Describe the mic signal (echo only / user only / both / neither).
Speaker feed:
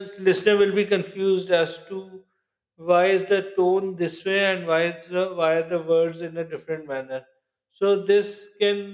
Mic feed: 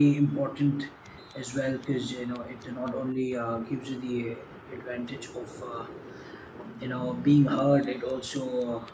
user only